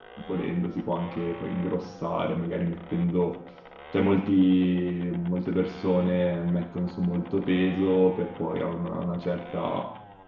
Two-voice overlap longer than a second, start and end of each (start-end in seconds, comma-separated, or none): none